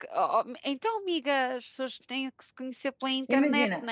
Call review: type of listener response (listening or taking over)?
taking over